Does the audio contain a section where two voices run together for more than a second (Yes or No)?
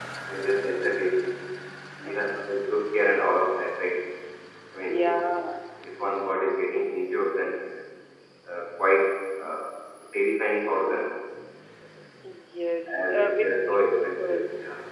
Yes